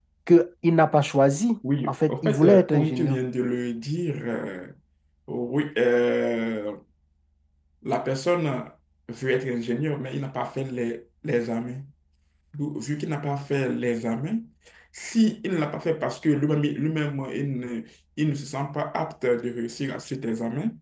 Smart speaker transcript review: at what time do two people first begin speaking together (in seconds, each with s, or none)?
1.6 s